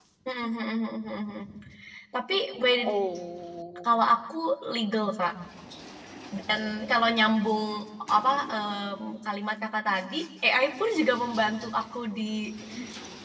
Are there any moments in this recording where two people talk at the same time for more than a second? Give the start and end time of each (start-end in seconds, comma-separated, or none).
none